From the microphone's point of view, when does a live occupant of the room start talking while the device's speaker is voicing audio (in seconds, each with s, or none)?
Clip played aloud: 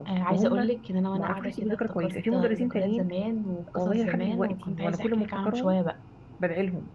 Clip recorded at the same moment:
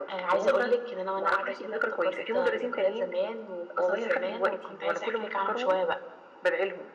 none